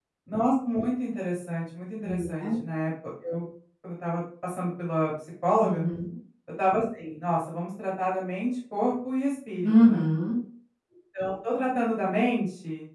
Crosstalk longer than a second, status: none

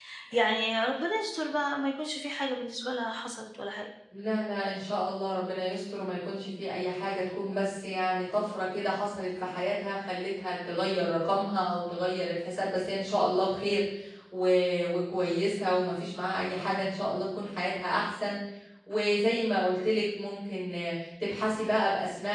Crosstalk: none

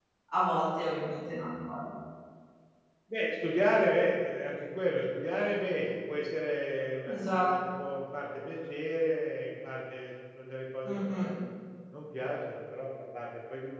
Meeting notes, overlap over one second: none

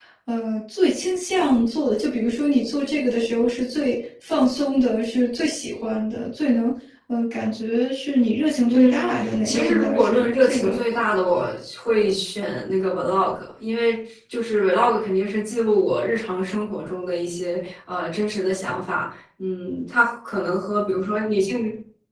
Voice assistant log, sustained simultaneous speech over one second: present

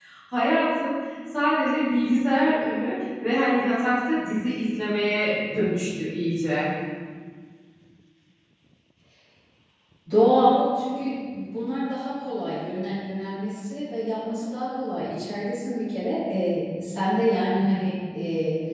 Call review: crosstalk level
none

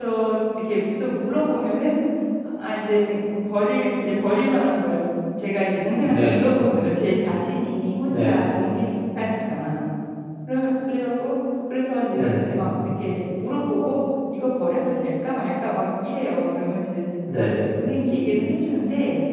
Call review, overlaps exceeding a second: none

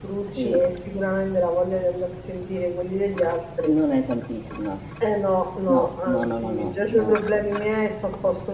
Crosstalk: present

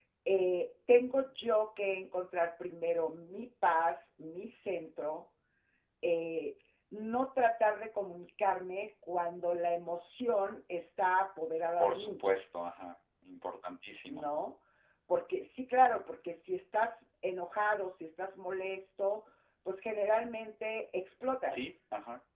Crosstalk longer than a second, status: none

